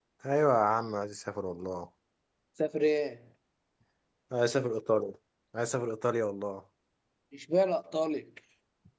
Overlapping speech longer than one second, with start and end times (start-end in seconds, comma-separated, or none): none